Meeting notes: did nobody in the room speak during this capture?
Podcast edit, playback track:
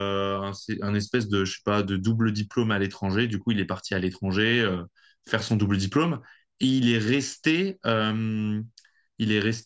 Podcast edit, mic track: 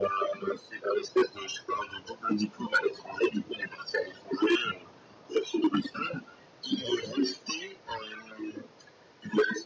Yes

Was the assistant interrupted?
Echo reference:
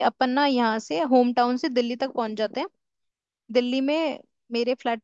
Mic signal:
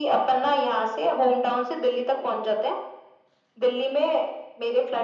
No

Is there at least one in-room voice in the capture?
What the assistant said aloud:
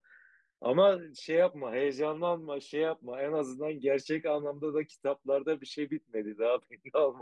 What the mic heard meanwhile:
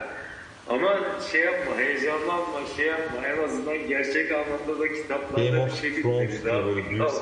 Yes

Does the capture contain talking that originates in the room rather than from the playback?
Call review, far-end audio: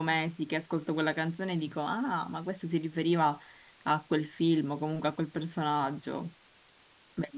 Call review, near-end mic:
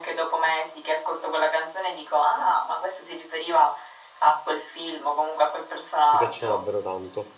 Yes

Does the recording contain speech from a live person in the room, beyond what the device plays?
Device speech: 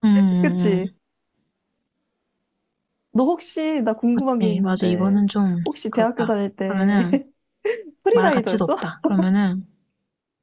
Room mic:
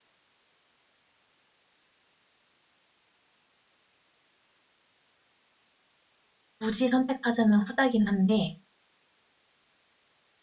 Yes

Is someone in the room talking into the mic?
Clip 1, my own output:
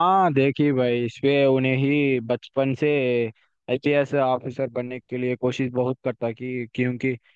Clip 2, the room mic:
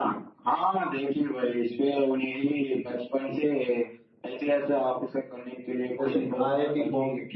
Yes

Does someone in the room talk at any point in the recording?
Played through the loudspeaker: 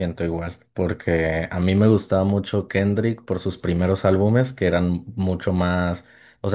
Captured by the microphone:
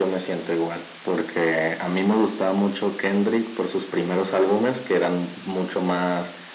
No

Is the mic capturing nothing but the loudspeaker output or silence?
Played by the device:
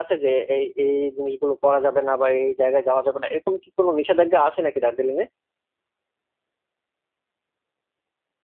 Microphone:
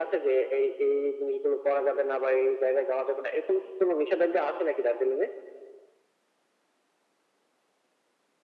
Yes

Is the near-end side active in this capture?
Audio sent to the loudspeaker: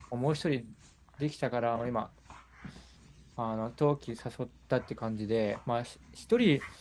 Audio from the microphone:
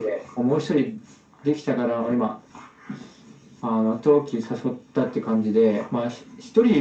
No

